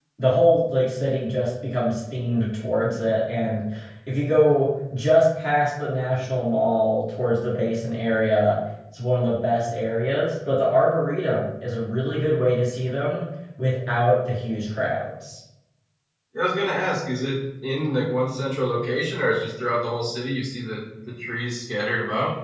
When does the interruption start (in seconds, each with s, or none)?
none